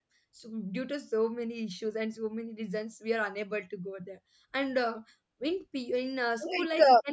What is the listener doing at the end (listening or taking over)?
taking over